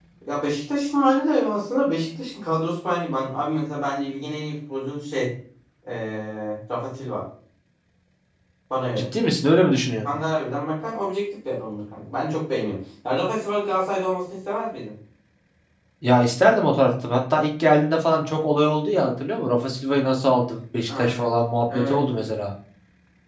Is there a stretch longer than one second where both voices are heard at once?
No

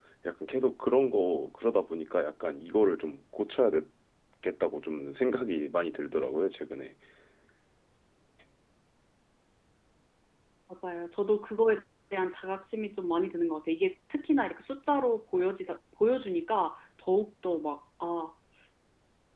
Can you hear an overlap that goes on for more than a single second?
No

